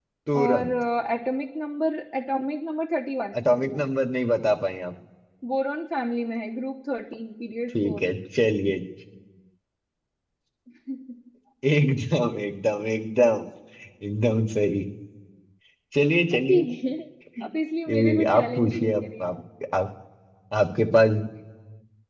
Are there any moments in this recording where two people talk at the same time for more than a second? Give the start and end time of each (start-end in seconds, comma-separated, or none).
17.9-19.4